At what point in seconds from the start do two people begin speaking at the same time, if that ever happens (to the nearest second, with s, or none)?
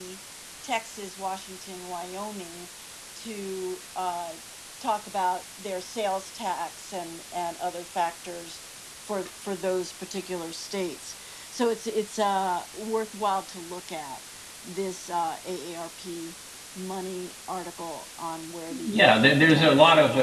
19 s